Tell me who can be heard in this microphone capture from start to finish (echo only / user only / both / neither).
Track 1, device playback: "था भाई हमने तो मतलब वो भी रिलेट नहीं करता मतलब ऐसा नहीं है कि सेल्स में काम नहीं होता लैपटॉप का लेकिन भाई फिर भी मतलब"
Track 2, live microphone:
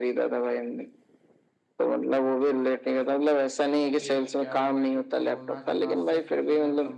both